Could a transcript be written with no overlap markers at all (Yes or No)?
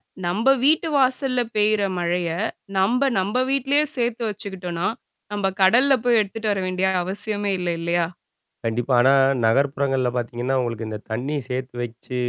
Yes